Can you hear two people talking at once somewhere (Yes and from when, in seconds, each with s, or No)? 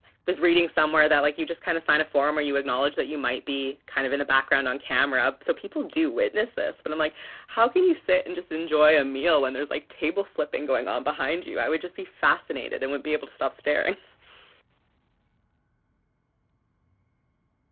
No